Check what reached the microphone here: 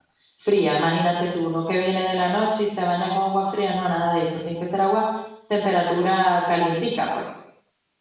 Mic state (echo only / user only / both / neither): user only